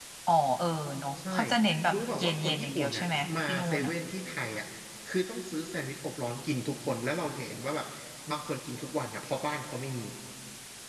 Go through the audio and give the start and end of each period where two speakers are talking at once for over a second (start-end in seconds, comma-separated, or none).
1.9-3.9